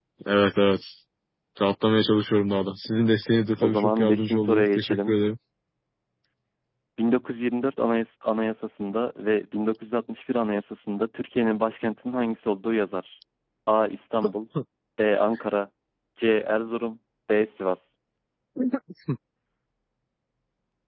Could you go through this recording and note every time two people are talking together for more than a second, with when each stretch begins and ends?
3.6-5.2

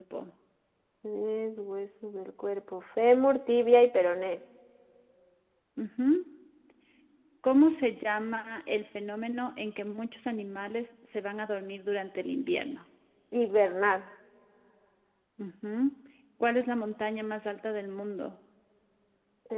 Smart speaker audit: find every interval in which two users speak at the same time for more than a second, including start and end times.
none

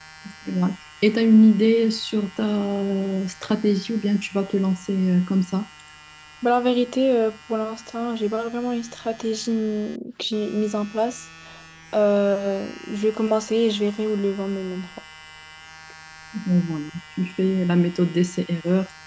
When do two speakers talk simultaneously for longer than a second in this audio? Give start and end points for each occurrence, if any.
none

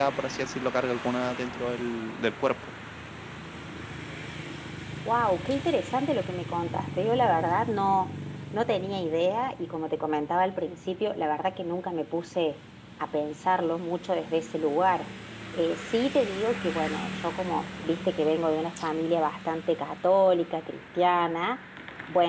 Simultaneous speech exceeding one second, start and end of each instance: none

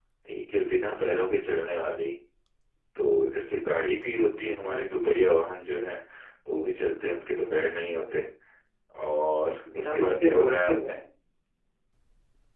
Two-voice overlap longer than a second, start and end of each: 9.7-10.9

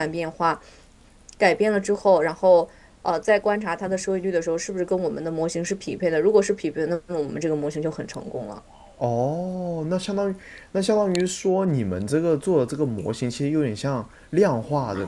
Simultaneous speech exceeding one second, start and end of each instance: none

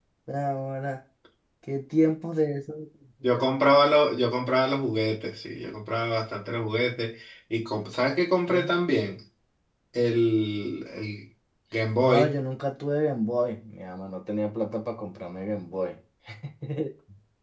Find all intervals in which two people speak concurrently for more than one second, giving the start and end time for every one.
none

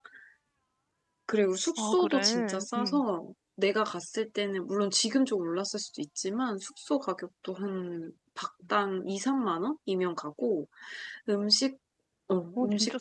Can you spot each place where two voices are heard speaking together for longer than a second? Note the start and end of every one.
1.8-3.0

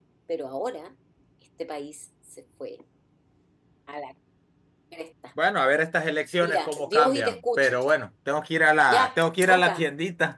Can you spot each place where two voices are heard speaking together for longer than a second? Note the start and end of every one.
6.4-7.8

